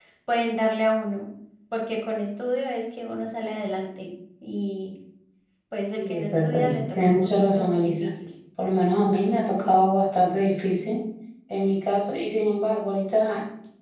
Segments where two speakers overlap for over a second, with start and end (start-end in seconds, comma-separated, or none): 5.9-8.1